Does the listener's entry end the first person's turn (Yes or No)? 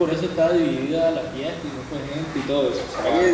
Yes